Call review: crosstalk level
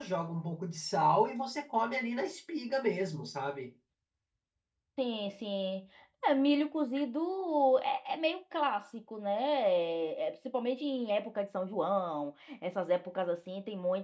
none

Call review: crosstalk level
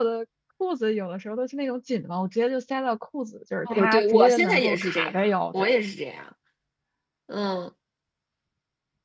present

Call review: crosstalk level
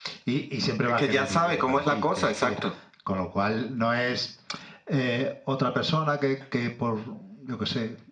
present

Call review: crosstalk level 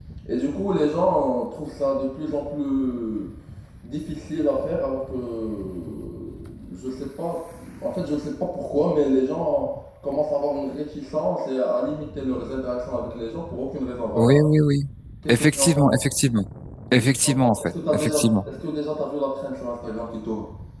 present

